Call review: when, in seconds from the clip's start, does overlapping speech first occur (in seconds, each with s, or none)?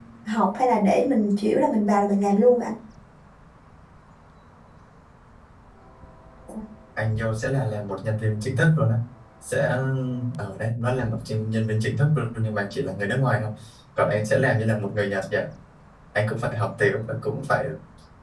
none